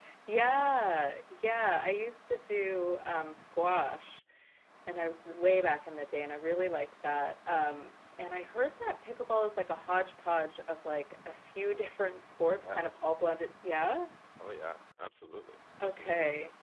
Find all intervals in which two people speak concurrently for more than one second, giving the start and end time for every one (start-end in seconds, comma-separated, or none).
none